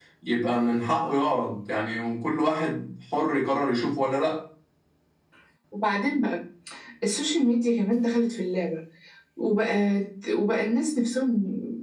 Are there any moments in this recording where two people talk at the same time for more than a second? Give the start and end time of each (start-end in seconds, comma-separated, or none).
none